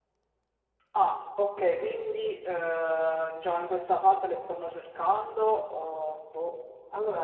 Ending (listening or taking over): taking over